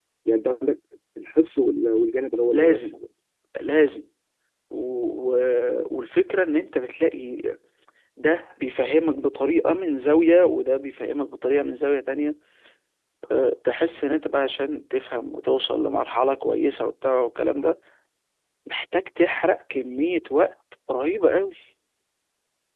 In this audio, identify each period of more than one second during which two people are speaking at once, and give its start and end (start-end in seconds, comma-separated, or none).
none